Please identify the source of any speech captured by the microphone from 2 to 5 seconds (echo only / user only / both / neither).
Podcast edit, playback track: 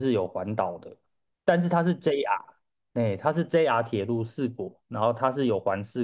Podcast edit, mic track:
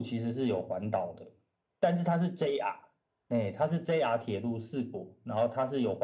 echo only